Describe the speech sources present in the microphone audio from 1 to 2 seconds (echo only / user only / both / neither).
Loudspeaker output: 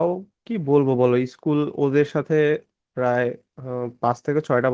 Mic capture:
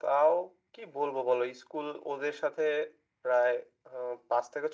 echo only